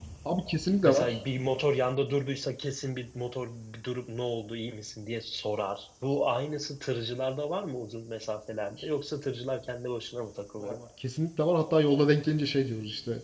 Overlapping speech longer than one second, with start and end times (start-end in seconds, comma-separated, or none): none